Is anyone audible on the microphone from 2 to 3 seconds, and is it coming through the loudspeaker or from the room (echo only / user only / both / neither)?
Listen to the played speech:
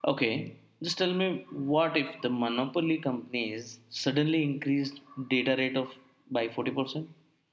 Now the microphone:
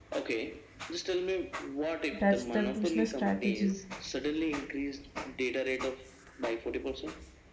both